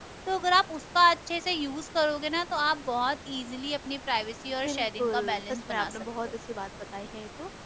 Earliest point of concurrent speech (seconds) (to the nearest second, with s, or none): 5 s